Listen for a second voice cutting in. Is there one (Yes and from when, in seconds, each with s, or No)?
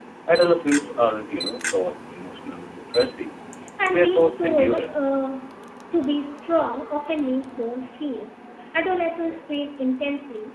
Yes, from 3.9 s